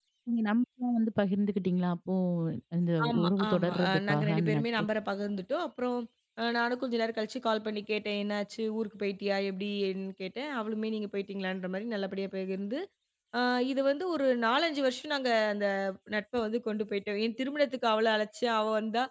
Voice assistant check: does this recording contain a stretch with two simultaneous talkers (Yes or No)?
Yes